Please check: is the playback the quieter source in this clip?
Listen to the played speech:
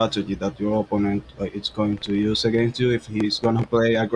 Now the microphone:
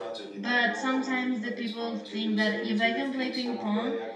Yes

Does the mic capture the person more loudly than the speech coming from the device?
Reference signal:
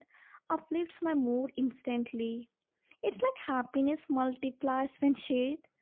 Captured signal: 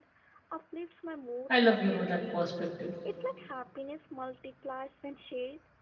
Yes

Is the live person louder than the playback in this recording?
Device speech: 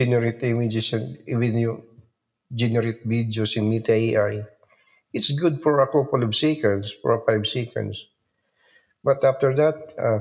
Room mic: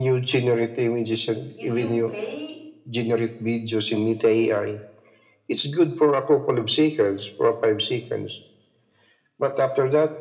No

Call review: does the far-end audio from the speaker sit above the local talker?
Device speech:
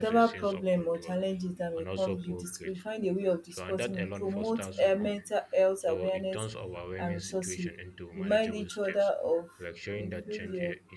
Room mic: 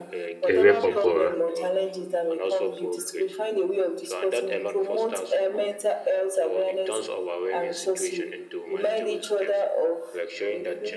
No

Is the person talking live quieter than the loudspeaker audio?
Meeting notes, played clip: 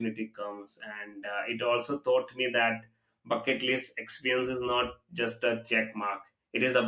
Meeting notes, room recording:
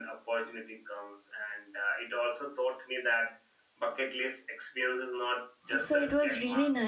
No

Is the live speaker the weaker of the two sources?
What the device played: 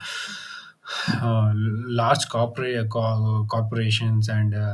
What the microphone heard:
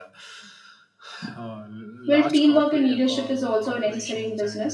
No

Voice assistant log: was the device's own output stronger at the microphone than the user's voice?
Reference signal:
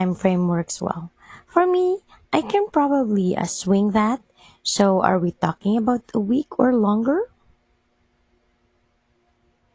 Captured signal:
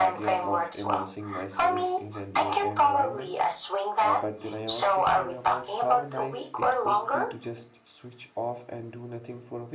Yes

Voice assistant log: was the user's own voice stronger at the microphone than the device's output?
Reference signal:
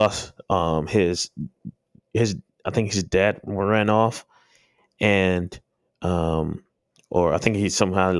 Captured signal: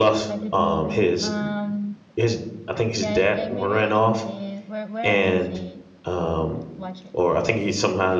No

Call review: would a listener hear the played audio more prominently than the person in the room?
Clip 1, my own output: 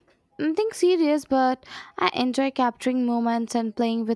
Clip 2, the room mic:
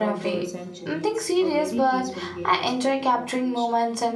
Yes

